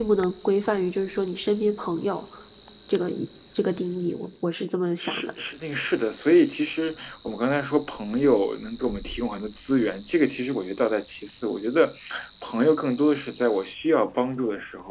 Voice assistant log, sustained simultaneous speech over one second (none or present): none